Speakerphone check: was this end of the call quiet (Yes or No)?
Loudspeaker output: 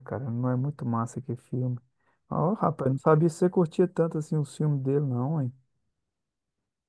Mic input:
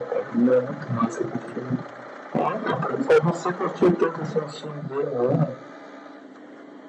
Yes